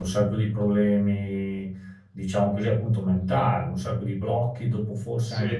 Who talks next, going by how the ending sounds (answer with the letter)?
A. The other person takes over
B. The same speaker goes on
A